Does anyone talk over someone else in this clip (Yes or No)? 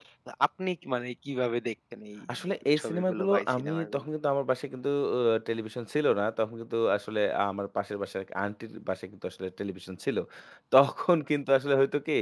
Yes